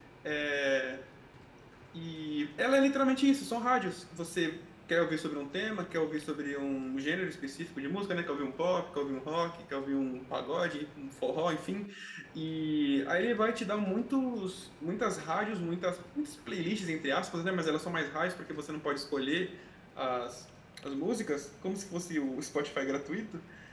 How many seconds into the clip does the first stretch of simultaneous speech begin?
none

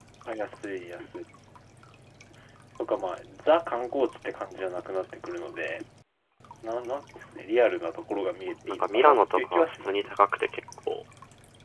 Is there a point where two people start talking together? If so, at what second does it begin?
9 s

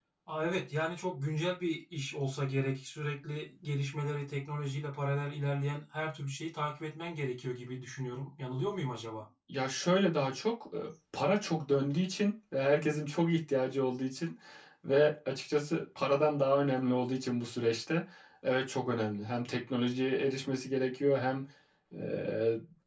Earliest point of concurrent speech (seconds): none

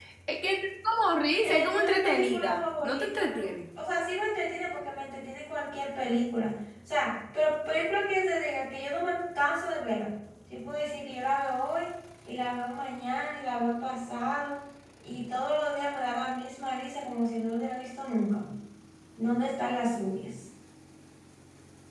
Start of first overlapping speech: 1 s

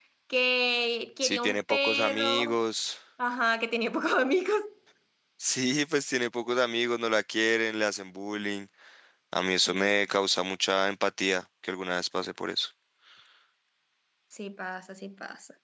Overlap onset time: 1 s

